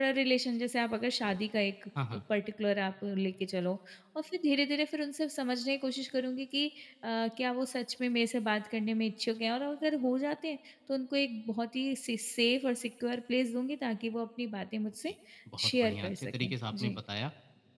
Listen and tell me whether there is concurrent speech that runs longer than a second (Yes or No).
Yes